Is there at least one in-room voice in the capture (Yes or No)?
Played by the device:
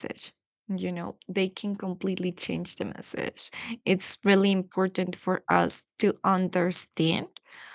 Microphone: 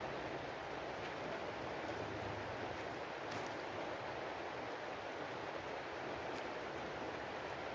No